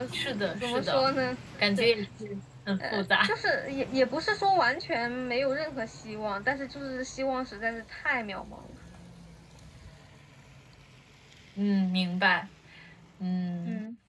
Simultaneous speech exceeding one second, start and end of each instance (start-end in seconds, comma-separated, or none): none